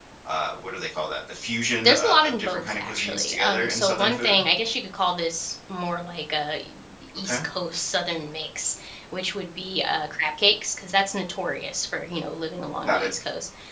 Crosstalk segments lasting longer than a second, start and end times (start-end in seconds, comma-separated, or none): 1.8-4.4